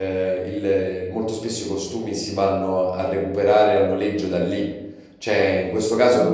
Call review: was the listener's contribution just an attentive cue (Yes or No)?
Yes